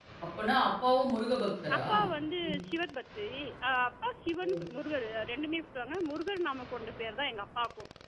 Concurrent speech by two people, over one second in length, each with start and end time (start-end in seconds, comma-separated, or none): none